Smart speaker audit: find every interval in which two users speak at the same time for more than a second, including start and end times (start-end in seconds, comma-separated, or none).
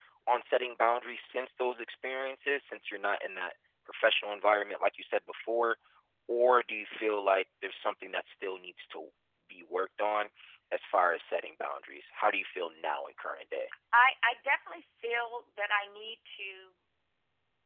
none